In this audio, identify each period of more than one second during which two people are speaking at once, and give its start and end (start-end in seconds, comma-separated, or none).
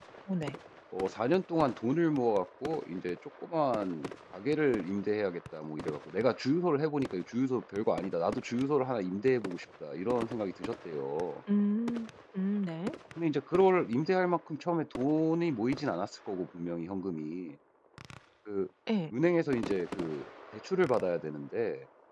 none